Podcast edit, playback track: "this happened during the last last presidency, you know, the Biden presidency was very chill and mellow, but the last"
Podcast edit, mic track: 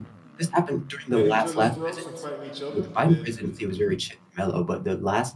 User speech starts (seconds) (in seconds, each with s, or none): 1.1 s